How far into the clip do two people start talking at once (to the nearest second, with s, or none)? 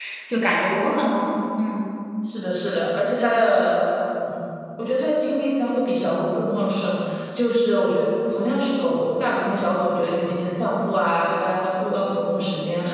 none